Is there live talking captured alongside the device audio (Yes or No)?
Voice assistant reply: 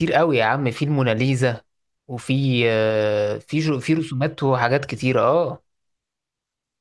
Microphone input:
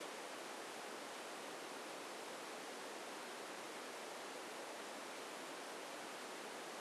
No